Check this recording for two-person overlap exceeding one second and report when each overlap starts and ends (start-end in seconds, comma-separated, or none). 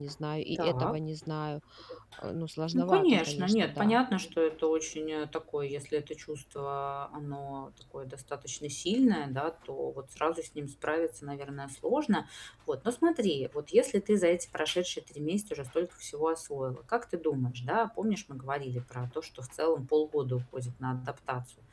2.7-4.0